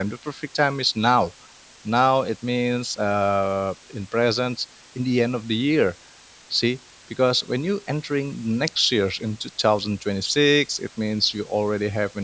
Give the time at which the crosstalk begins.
none

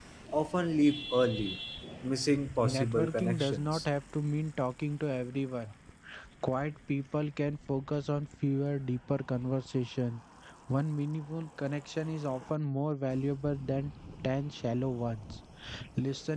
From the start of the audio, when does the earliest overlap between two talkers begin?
3 s

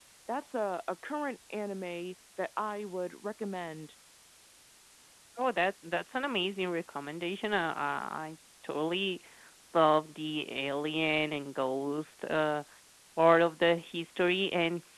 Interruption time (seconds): none

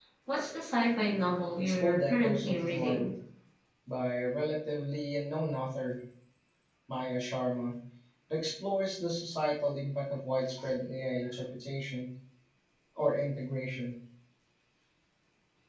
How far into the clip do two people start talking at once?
2 s

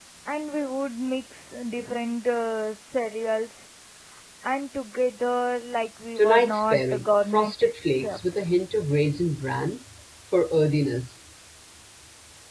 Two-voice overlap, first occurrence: 6 s

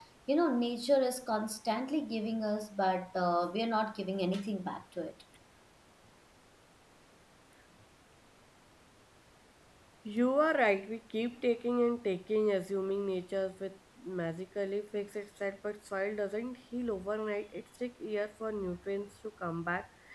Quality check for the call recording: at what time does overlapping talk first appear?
none

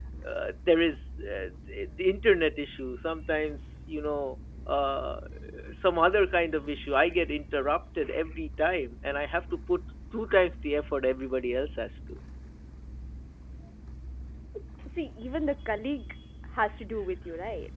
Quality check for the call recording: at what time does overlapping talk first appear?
none

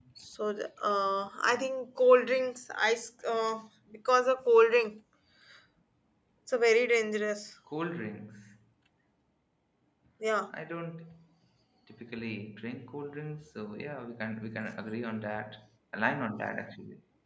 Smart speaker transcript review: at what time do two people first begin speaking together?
none

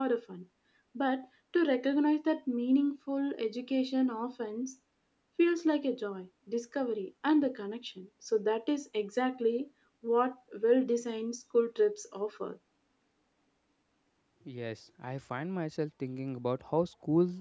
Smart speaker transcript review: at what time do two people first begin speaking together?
none

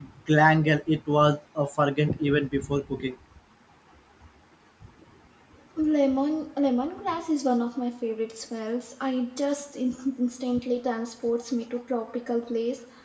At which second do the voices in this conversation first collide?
none

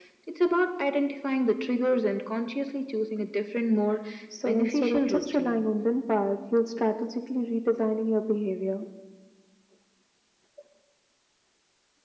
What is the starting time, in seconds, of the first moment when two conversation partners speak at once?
4 s

